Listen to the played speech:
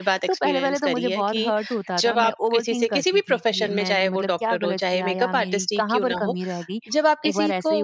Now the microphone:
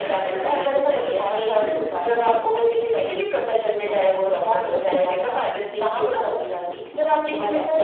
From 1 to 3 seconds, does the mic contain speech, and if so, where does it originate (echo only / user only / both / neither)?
echo only